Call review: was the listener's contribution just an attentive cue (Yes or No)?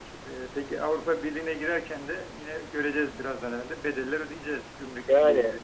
No